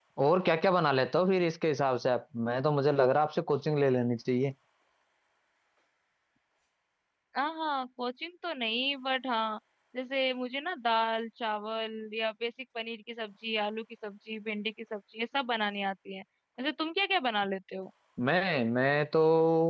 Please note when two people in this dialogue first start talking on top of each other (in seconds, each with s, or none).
none